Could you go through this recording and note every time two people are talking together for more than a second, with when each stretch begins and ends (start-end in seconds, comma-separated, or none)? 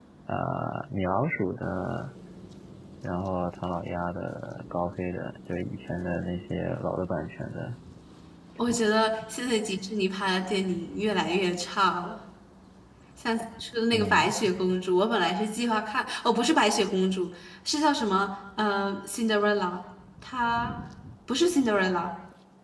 none